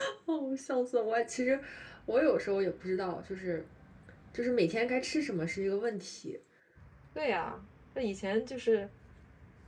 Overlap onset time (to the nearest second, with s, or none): none